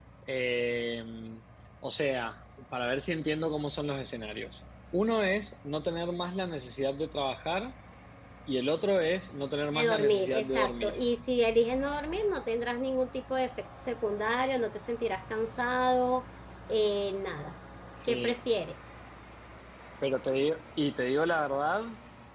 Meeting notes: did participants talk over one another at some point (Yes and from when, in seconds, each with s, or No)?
Yes, from 9.7 s